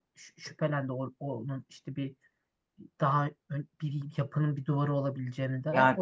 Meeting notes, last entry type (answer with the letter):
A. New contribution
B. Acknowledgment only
A